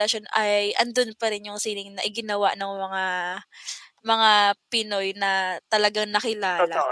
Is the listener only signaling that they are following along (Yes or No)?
No